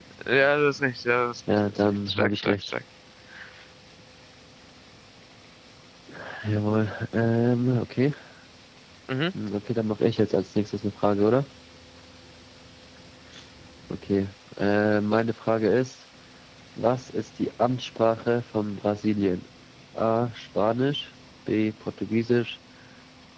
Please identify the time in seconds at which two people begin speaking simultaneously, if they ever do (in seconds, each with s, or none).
1.5 s